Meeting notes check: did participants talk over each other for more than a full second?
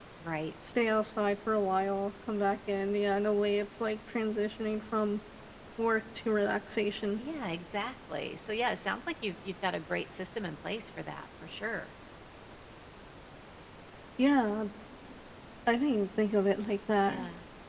No

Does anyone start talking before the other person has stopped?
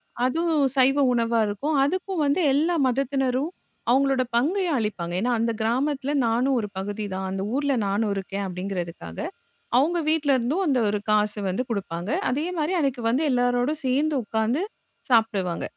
No

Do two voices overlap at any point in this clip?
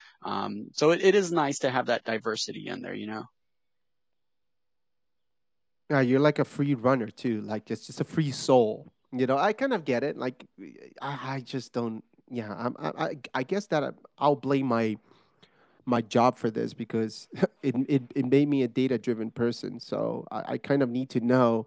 No

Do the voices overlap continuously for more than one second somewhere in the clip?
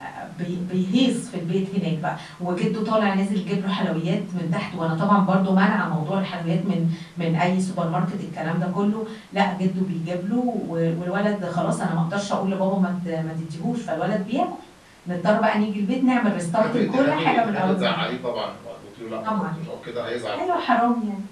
Yes, from 16.6 s

